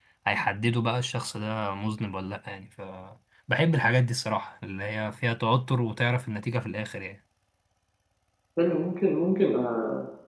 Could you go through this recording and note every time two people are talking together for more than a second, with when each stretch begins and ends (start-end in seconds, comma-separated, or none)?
none